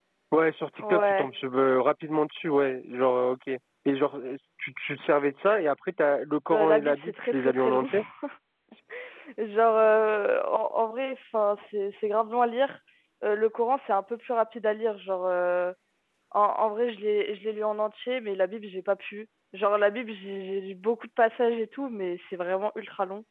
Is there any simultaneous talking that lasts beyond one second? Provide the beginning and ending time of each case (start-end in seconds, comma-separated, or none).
6.5-7.9